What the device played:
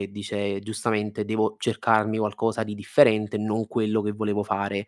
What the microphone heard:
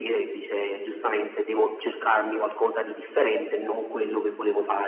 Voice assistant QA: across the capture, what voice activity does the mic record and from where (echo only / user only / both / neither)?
echo only